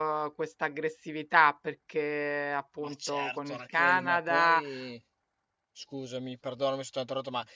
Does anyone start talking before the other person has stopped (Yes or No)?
Yes